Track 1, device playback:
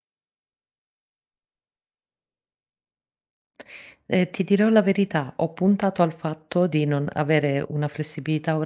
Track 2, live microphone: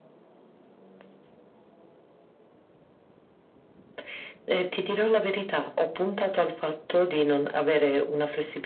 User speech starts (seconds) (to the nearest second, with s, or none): none